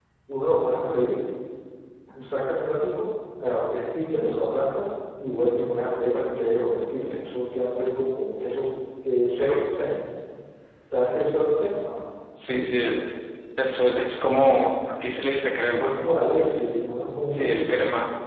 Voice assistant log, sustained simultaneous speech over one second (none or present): none